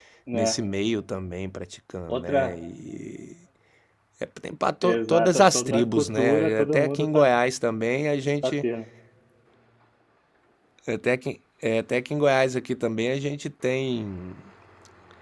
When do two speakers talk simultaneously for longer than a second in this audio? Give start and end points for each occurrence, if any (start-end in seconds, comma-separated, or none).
4.8-7.3